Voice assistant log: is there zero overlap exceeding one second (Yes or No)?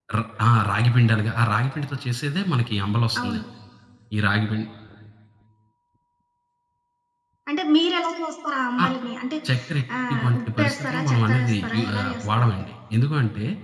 No